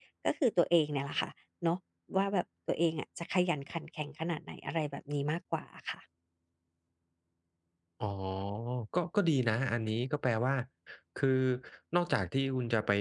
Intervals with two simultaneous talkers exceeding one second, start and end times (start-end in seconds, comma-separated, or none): none